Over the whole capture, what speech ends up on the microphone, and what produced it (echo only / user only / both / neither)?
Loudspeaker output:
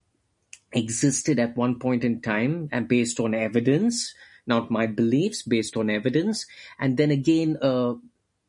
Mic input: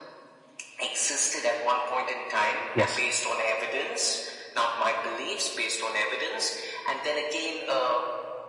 both